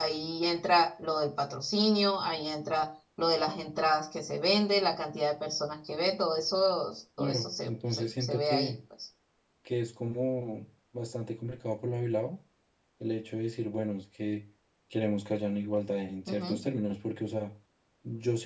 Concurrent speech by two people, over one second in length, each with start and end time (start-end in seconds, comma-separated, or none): 7.2-8.7